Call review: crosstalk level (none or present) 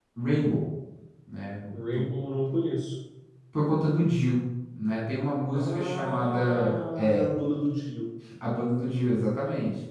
present